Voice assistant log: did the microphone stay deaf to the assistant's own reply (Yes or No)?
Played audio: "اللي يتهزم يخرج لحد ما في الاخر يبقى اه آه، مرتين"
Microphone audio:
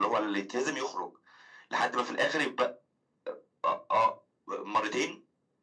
No